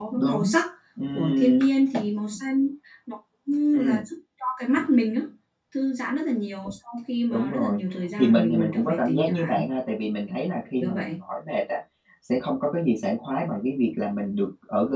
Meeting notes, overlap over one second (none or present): present